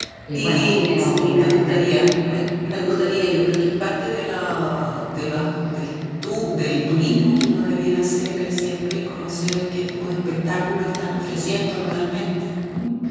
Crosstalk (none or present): present